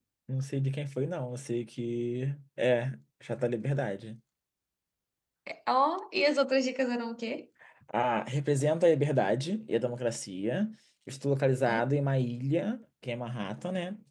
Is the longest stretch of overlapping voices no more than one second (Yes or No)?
Yes